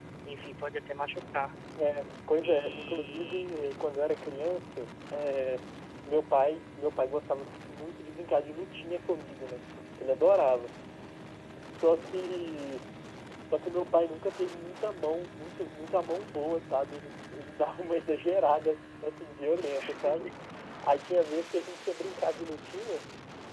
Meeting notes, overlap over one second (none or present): present